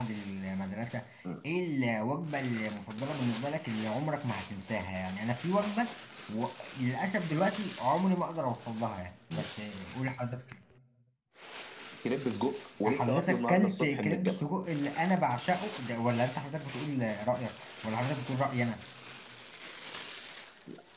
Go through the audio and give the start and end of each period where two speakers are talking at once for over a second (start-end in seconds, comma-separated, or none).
12.8-14.4